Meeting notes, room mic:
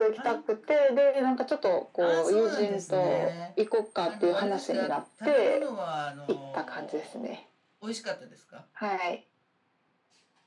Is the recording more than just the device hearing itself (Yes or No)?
Yes